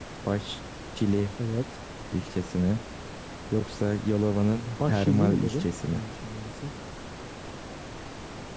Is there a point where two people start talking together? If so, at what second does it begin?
4.7 s

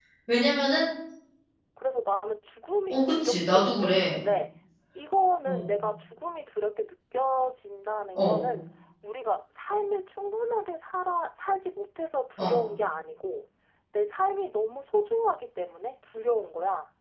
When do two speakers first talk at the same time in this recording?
2.9 s

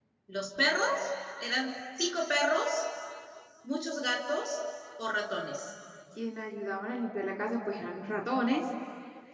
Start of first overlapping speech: none

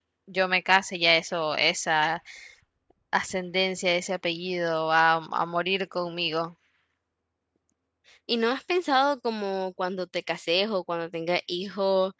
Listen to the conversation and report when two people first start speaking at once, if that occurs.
none

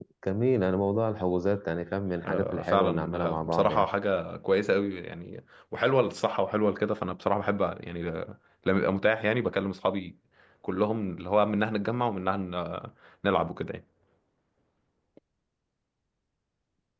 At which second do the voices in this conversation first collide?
2.2 s

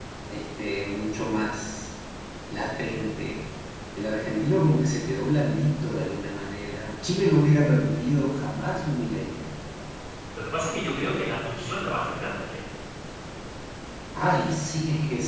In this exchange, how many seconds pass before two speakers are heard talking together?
none

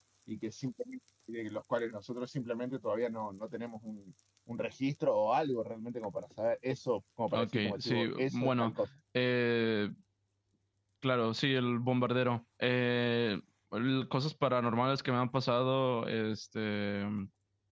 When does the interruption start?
7.3 s

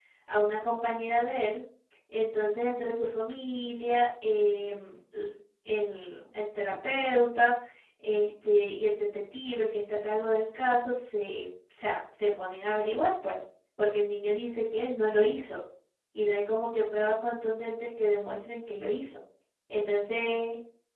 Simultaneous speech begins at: none

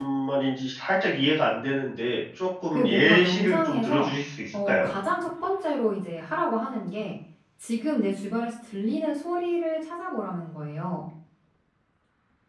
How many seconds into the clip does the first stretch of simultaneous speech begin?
2.7 s

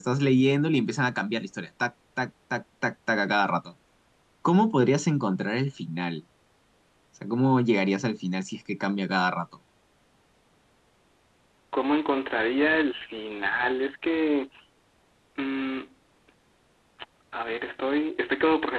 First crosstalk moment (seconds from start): none

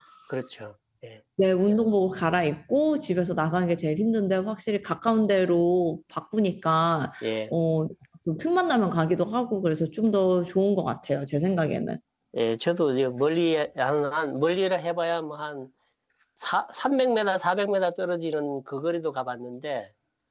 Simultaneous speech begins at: none

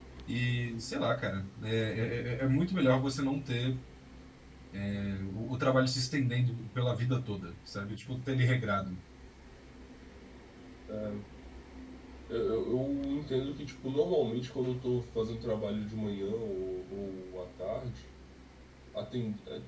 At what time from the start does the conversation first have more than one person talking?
none

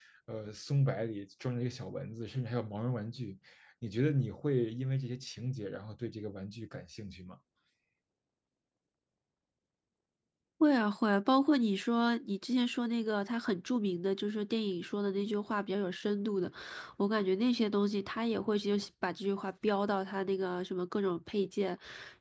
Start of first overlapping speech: none

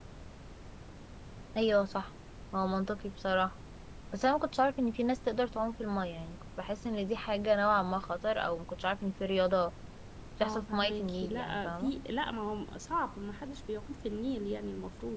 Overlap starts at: 10.4 s

